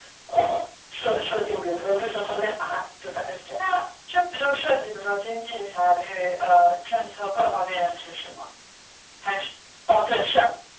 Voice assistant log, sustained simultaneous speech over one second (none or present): none